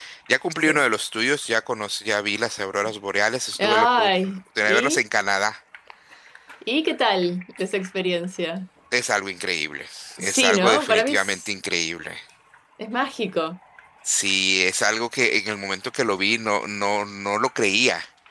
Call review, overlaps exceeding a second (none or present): present